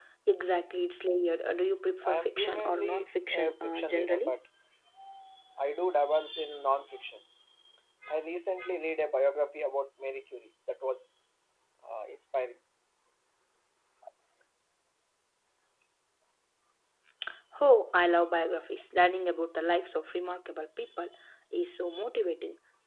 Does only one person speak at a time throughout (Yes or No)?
No